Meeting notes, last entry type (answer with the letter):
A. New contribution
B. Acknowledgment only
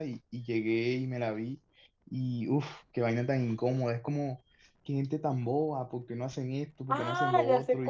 A